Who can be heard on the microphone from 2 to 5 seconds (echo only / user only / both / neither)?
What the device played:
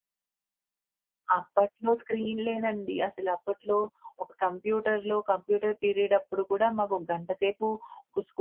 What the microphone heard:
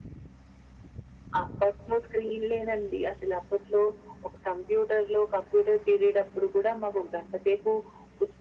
echo only